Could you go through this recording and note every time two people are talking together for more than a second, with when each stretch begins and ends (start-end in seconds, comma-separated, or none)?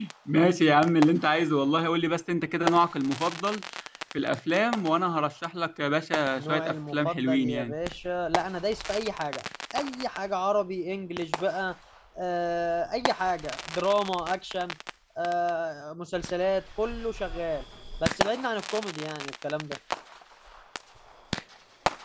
6.4-7.7